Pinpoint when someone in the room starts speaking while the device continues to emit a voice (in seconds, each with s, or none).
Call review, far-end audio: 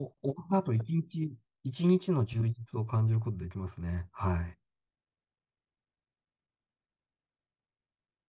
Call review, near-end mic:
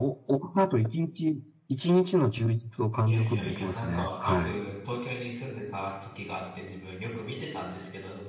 3.0 s